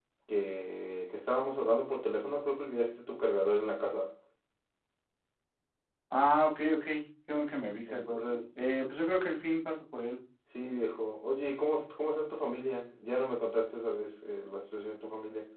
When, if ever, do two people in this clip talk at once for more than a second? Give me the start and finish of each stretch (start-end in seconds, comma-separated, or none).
none